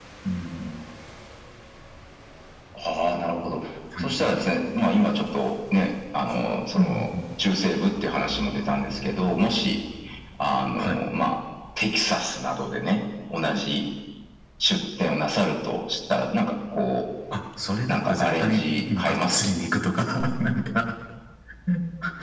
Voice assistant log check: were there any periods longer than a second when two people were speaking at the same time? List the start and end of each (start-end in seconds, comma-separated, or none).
17.9-19.5